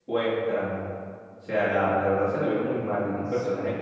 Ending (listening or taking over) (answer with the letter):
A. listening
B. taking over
A